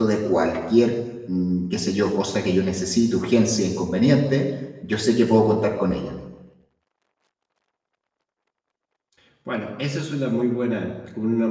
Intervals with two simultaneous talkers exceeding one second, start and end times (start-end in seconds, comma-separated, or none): none